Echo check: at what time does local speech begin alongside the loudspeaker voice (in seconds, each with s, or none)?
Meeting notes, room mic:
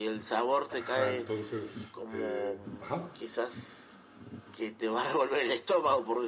0.7 s